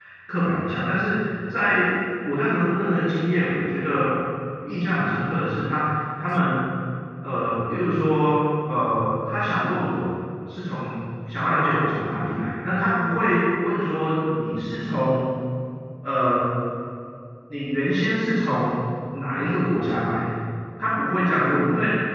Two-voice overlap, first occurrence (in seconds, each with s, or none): none